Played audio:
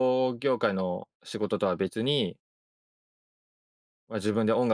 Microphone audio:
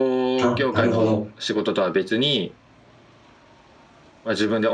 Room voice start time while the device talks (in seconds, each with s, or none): 0.4 s